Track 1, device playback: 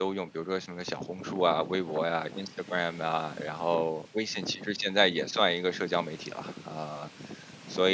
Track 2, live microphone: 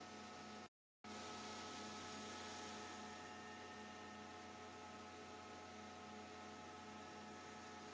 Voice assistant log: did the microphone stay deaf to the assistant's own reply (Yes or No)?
Yes